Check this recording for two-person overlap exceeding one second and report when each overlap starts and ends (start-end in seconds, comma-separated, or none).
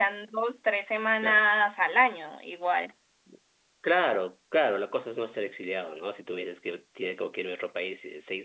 none